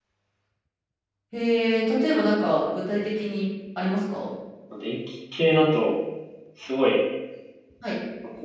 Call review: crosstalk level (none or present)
none